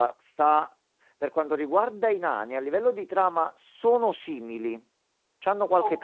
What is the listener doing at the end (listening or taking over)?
listening